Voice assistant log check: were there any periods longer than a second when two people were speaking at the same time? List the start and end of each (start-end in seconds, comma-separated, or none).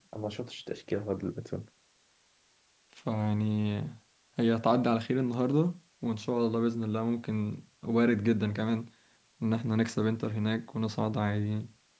none